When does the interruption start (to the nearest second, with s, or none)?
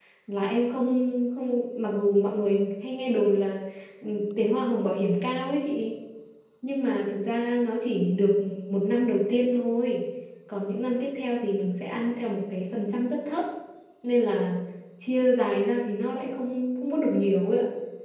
none